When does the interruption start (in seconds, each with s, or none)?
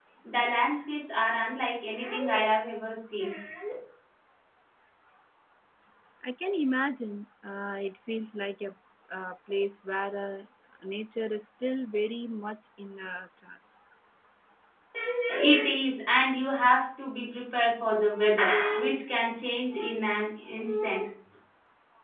none